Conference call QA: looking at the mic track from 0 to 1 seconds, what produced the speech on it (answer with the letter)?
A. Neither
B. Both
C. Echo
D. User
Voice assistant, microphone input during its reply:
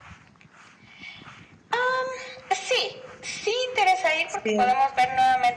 A